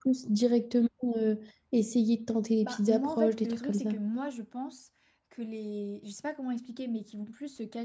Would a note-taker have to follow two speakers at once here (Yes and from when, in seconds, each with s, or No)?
Yes, from 2.6 s